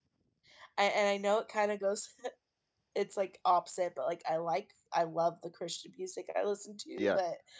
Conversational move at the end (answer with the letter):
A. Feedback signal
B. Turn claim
A